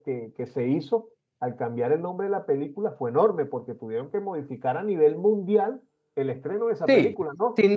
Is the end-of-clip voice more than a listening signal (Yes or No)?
Yes